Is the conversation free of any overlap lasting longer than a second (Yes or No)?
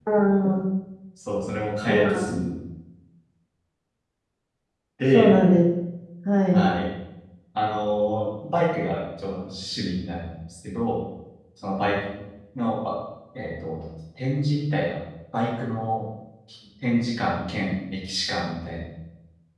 Yes